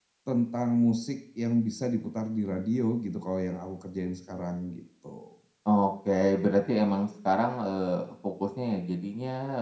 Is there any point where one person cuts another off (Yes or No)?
No